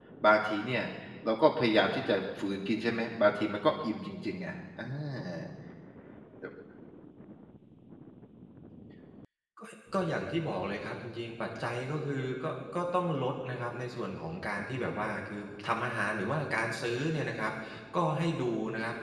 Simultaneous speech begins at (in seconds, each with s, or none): none